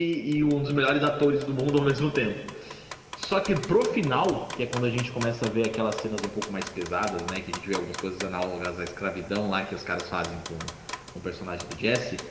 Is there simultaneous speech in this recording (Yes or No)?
No